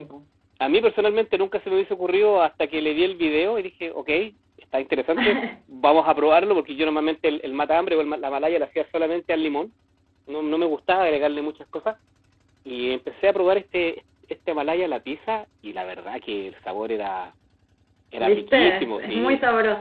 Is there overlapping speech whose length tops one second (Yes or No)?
Yes